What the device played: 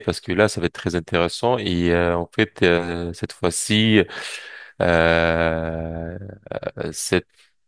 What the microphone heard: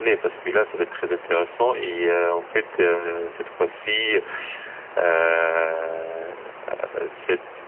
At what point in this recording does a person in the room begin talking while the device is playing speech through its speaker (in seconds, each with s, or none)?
none